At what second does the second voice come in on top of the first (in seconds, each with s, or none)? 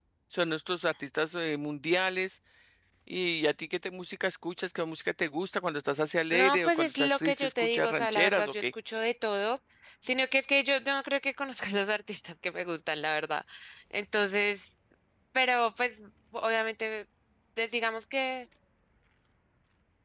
6.3 s